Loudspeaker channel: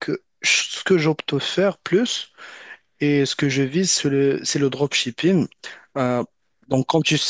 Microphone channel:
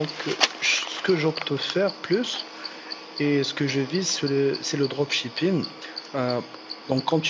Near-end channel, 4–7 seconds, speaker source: echo only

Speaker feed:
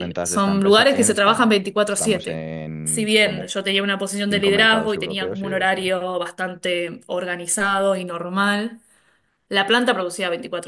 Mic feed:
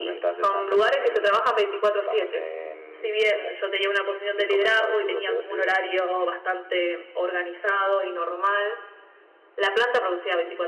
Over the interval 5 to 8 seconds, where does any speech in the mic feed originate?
echo only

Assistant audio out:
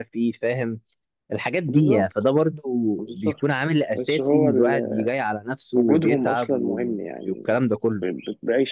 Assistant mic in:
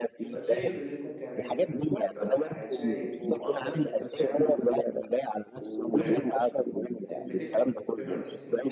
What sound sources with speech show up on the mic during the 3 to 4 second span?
both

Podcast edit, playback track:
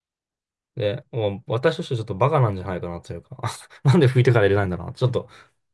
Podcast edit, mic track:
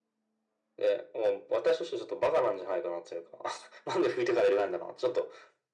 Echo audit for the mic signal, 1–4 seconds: echo only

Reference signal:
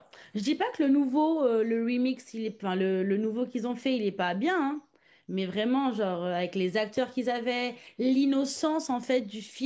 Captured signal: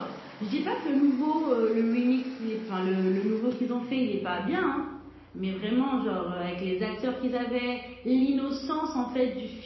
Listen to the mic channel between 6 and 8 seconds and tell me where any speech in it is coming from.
echo only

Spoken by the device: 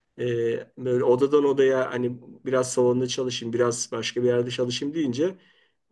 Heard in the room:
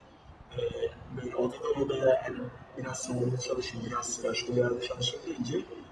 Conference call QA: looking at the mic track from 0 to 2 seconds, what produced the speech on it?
echo only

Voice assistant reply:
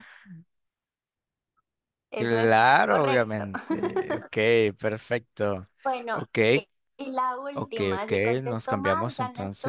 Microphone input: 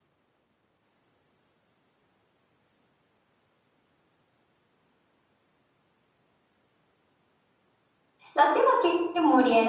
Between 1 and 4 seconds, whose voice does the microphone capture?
neither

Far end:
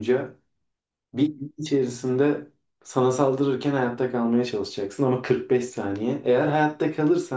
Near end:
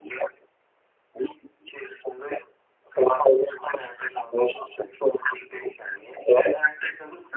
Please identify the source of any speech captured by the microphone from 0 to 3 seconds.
echo only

